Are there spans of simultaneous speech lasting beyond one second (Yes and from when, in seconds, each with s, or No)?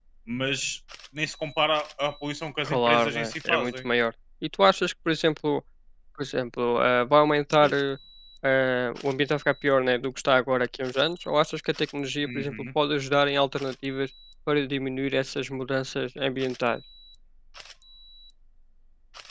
Yes, from 2.6 s